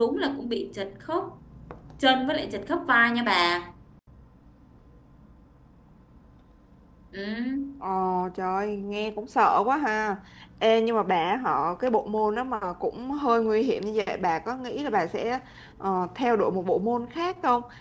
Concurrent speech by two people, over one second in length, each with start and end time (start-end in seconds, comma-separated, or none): none